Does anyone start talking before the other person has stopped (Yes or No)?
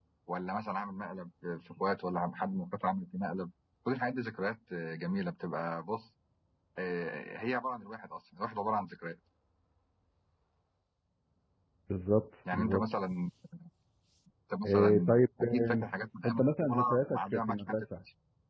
Yes